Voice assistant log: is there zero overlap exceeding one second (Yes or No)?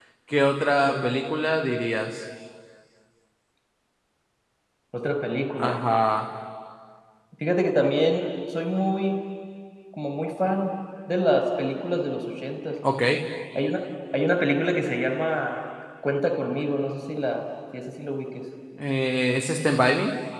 Yes